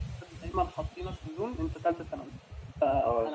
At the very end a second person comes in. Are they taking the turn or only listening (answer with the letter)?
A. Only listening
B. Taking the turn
B